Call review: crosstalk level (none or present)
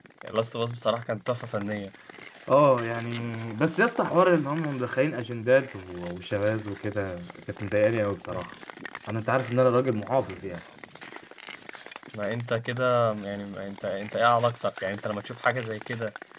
none